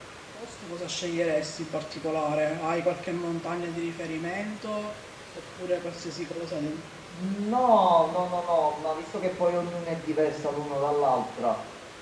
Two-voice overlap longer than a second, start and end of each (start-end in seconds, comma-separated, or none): none